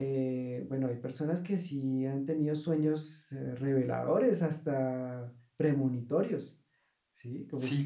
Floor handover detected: Yes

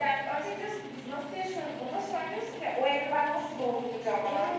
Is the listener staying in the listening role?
No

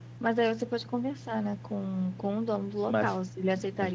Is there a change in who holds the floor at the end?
Yes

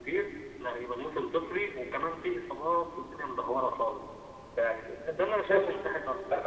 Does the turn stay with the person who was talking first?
No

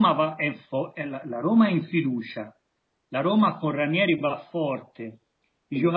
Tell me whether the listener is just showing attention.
Yes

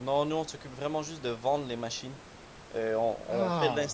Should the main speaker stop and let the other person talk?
No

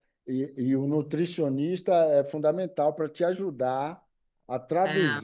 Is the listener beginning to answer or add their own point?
No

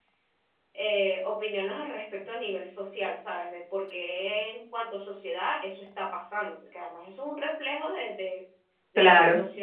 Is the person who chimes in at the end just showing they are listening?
Yes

